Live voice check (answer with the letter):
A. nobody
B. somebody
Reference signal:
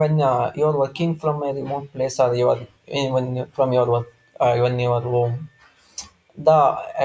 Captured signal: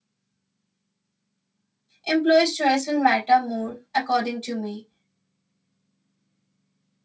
B